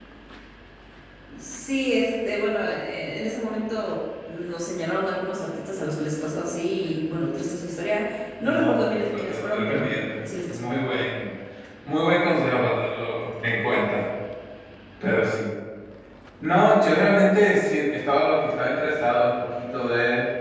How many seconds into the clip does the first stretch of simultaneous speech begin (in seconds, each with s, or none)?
8.4 s